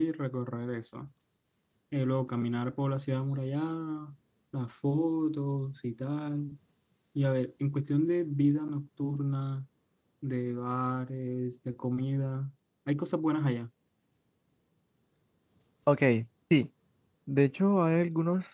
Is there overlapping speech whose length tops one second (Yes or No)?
No